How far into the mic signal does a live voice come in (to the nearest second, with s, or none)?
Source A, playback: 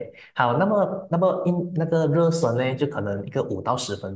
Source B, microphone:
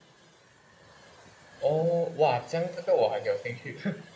2 s